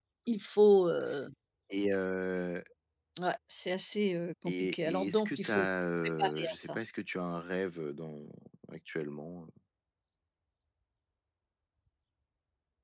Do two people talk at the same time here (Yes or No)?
Yes